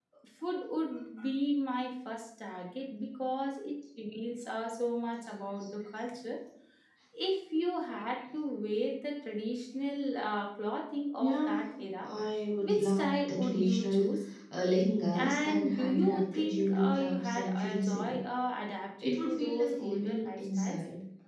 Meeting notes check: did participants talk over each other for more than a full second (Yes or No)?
Yes